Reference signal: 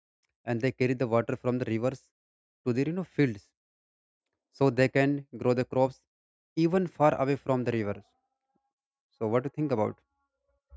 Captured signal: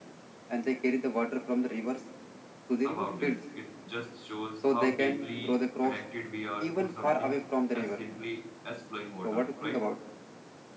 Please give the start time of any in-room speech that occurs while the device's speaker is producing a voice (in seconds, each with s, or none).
2.8 s